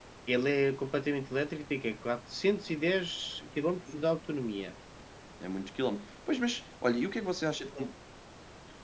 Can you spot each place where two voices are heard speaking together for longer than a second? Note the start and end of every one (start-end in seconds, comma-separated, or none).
none